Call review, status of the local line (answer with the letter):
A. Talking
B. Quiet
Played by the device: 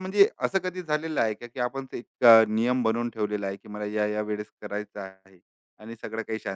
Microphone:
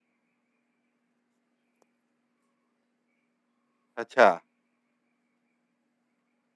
A